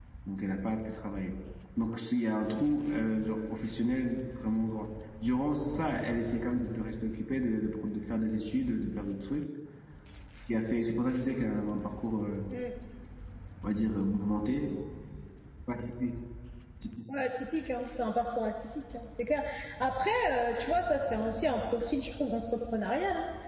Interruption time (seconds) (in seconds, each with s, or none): none